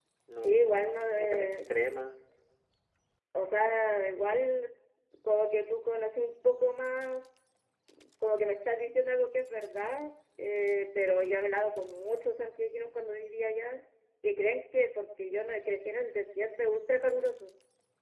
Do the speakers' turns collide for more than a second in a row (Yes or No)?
Yes